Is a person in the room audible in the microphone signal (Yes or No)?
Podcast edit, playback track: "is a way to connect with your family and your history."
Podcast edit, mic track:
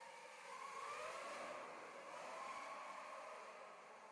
No